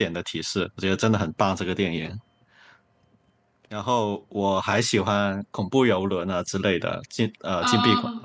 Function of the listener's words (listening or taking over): listening